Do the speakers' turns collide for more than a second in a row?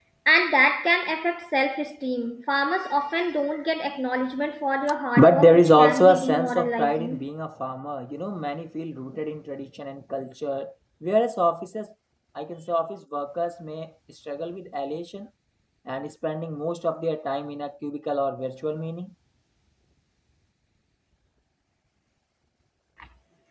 Yes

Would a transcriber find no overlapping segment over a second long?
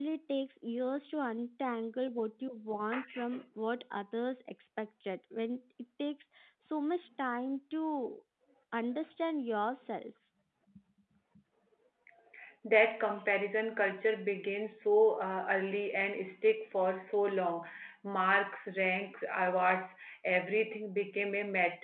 Yes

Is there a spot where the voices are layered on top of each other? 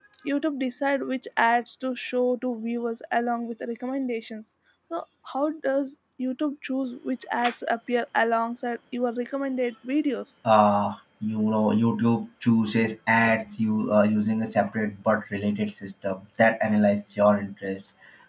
No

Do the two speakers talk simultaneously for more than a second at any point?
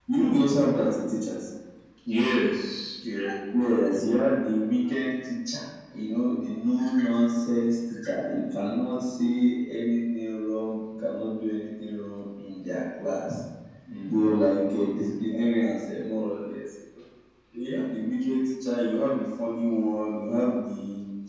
No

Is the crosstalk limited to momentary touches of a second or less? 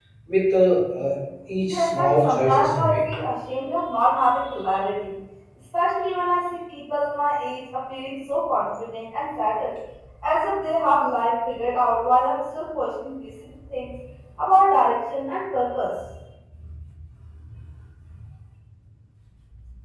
No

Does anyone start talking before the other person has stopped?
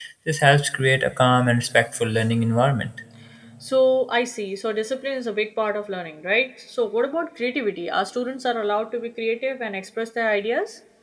No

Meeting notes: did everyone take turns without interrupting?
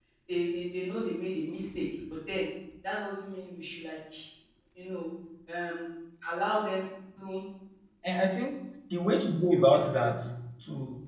Yes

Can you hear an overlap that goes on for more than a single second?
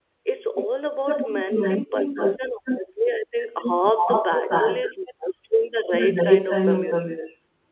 Yes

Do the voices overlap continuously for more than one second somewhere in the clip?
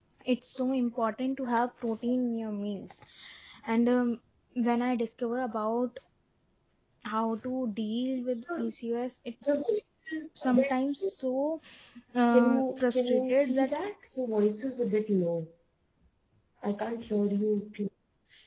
Yes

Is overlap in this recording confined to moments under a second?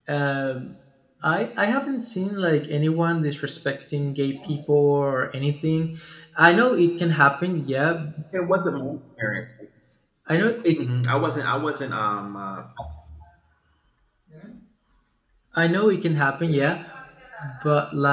Yes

